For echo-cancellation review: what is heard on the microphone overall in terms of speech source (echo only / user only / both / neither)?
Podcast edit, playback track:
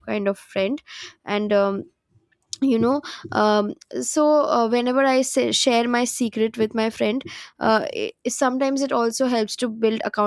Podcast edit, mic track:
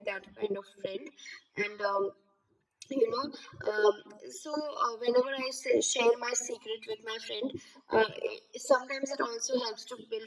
echo only